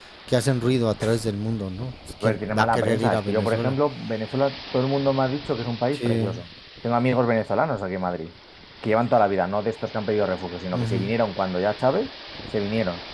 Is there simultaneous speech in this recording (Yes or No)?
Yes